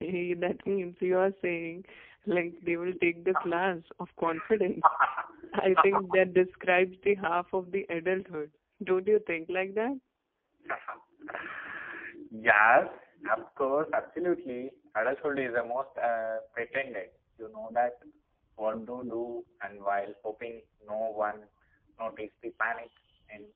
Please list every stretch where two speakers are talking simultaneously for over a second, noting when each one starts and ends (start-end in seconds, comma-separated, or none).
none